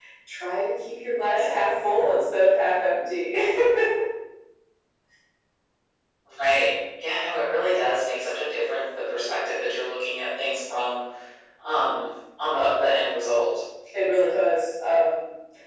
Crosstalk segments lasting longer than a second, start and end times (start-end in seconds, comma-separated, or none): none